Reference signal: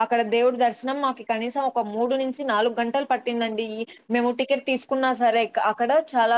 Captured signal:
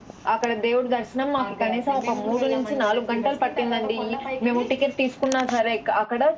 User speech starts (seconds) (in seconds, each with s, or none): 1.4 s